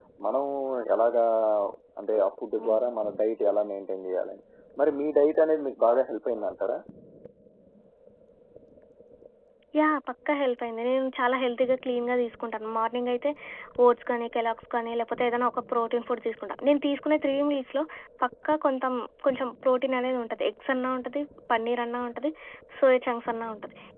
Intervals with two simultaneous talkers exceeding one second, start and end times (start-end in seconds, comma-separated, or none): none